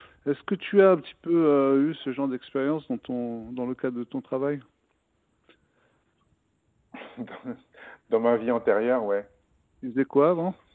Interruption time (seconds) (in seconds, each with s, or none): none